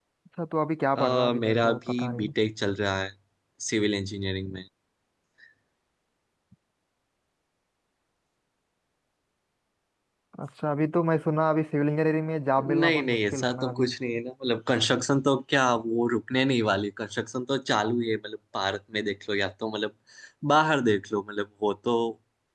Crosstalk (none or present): present